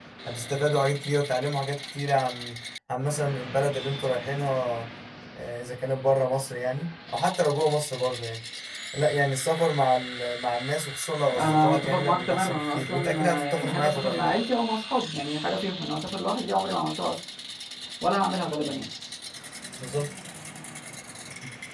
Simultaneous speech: Yes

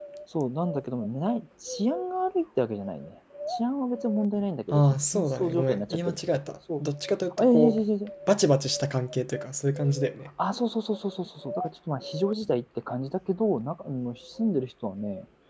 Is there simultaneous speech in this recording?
Yes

